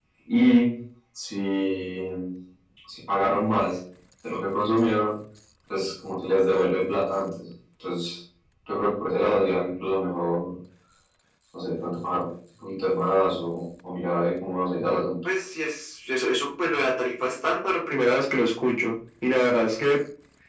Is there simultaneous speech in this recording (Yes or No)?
No